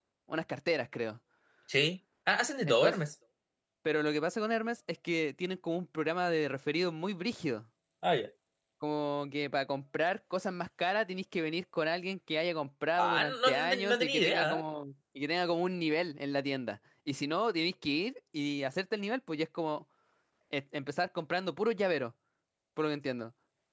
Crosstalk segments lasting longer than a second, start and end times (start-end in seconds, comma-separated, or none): 13.0-14.6